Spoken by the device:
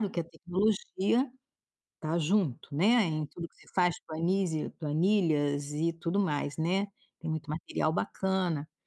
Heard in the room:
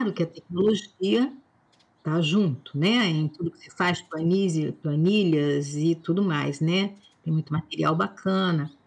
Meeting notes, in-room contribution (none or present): none